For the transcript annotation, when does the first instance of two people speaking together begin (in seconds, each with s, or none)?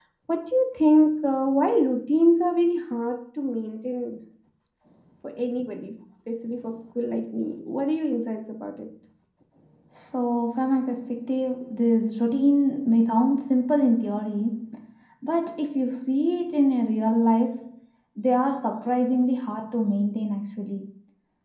none